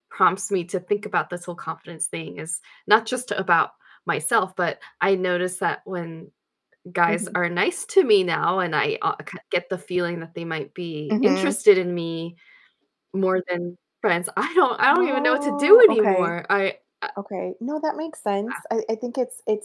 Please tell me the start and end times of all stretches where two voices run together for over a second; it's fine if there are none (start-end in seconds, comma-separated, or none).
14.9-16.3